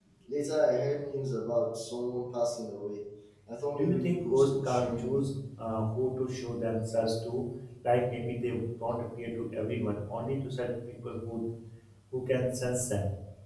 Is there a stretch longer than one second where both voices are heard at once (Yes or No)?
Yes